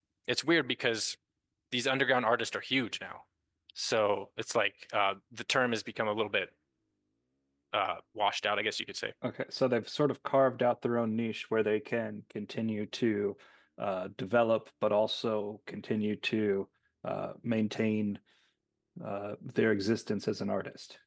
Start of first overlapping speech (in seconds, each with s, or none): none